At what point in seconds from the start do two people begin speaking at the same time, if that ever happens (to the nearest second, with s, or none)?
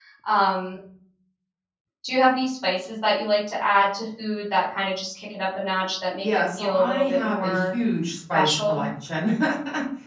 6 s